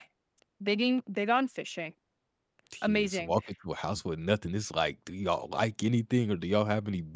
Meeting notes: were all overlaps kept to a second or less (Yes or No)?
Yes